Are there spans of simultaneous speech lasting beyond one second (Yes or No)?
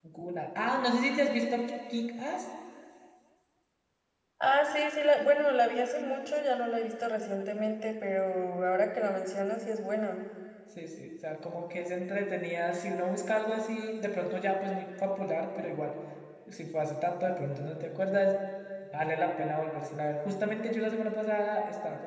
No